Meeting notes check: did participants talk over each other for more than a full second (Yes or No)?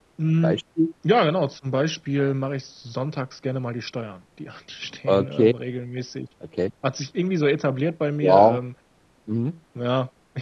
No